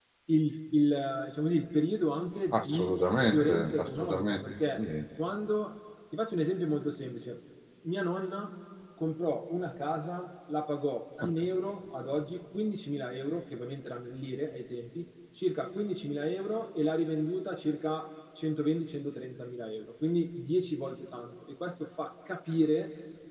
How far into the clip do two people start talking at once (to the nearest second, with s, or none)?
3 s